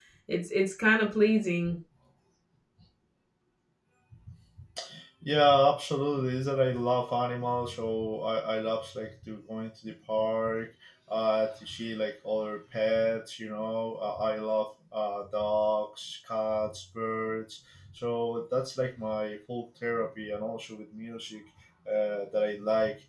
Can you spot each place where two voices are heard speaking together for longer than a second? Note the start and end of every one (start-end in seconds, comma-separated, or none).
none